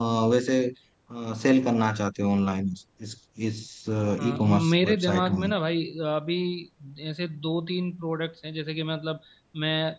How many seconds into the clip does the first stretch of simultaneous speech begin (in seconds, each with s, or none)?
4.2 s